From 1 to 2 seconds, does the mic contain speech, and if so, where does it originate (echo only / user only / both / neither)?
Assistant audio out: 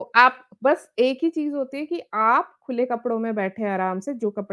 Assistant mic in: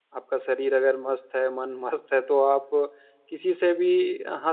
user only